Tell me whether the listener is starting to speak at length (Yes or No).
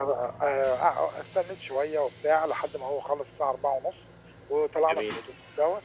No